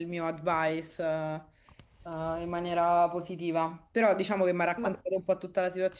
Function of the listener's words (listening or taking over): listening